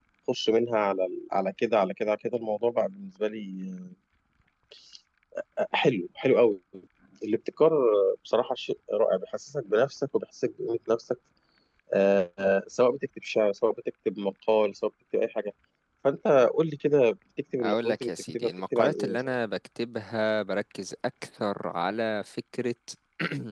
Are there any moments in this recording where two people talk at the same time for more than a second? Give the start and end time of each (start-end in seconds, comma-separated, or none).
17.6-19.3